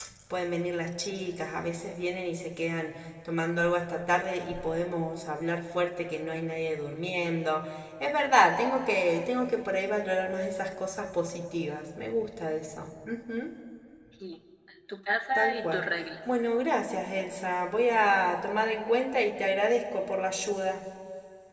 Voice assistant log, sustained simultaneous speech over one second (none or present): none